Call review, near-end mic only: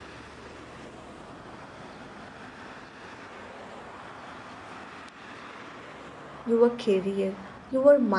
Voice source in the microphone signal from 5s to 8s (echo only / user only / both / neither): user only